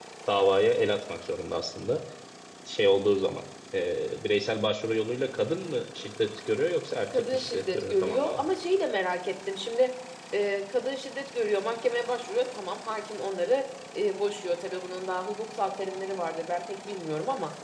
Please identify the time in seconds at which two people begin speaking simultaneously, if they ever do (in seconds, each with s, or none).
7.1 s